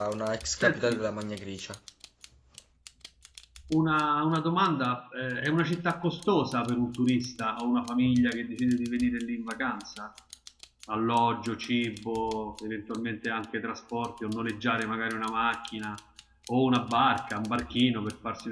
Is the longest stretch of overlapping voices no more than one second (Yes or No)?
Yes